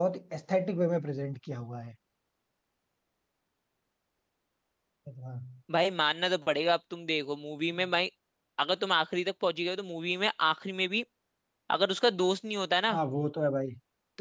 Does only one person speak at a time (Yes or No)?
Yes